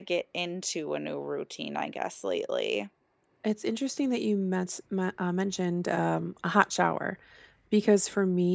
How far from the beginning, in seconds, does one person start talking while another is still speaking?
none

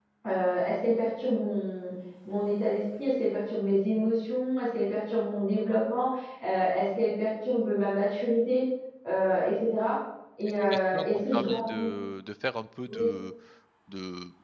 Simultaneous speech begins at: 10.5 s

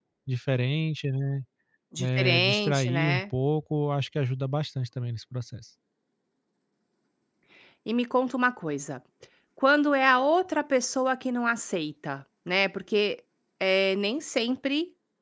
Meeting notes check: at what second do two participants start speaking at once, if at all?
2.0 s

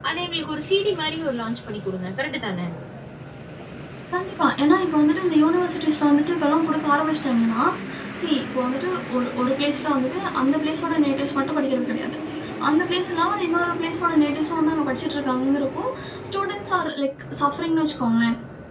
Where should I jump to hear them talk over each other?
none

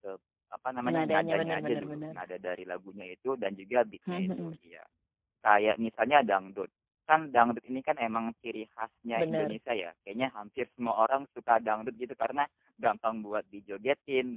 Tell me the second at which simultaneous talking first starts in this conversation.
0.9 s

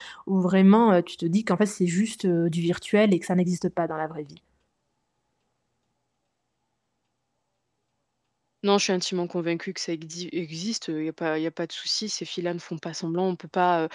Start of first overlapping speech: none

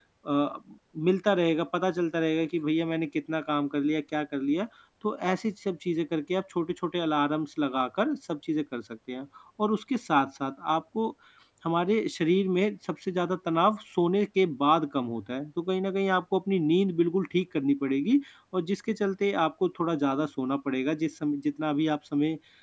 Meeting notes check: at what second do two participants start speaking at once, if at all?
none

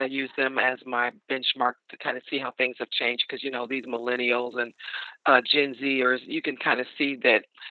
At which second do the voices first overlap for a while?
none

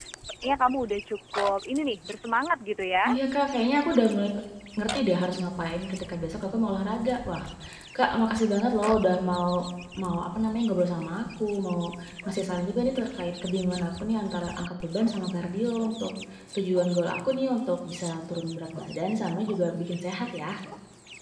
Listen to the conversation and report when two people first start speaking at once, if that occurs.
none

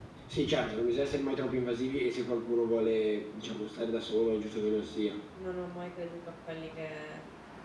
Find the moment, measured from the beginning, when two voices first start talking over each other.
none

